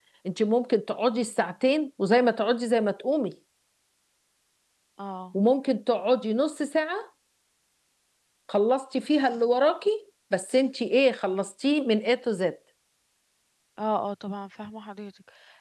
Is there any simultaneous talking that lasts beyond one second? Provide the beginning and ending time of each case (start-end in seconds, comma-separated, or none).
none